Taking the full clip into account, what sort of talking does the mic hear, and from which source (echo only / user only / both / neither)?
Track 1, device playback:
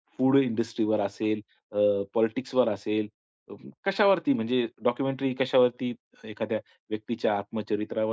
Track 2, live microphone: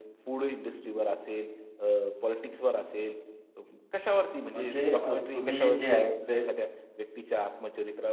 both